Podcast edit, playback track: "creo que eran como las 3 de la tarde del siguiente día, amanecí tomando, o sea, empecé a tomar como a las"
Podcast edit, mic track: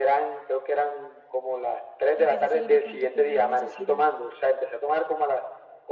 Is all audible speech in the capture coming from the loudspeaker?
No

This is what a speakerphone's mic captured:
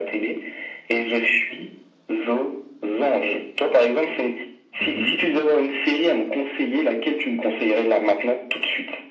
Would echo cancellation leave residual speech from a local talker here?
Yes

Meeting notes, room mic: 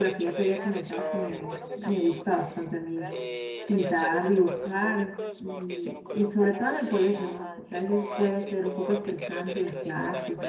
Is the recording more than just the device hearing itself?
Yes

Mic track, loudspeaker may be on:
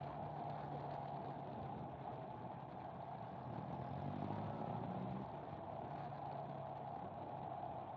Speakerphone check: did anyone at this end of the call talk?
No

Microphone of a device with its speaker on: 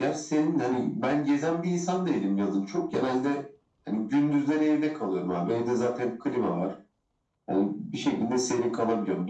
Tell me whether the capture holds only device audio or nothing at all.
Yes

